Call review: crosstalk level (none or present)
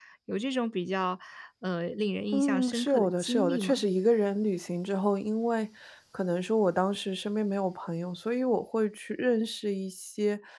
present